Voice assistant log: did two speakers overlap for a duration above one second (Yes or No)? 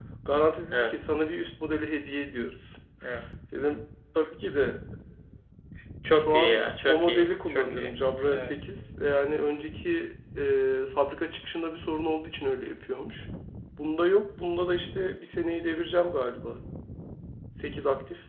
Yes